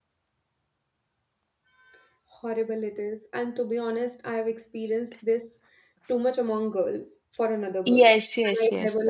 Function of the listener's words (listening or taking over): taking over